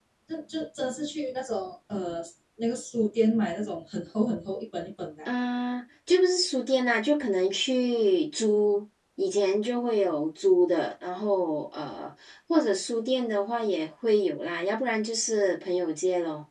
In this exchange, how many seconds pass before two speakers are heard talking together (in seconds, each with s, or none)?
none